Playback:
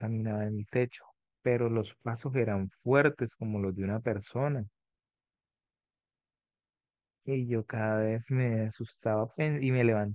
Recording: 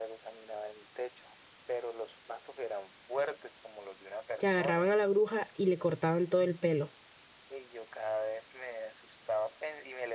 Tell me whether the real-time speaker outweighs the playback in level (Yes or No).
Yes